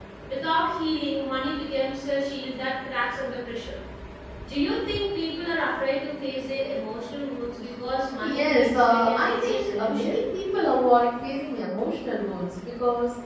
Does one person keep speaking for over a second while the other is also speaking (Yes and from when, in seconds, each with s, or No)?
Yes, from 8.2 s